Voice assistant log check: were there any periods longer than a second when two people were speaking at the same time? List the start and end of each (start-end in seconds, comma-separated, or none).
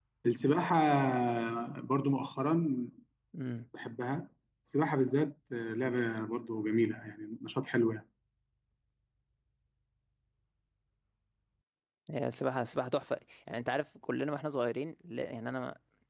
none